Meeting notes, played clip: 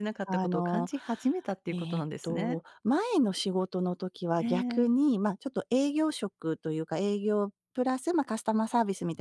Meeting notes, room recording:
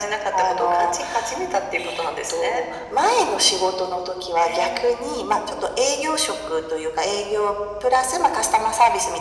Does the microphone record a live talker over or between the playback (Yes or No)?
No